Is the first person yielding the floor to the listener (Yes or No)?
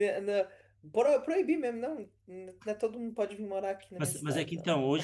Yes